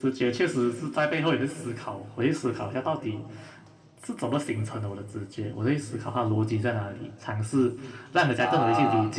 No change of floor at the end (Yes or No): Yes